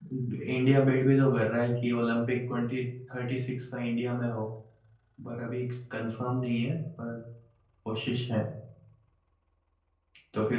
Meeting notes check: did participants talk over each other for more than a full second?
No

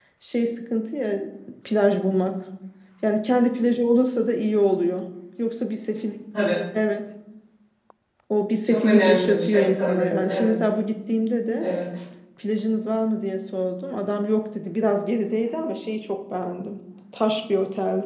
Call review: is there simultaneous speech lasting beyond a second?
Yes, from 8.7 s

